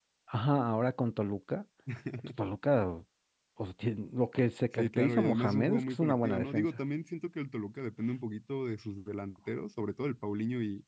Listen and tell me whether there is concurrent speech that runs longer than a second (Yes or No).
Yes